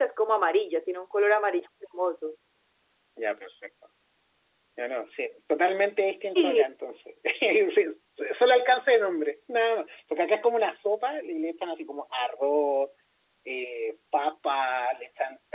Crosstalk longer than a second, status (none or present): none